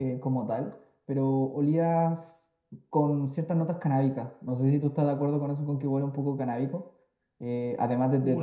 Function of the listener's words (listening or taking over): taking over